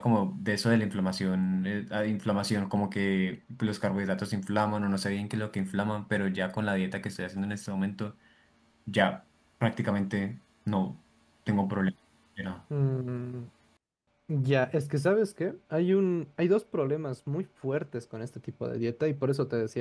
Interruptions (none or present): none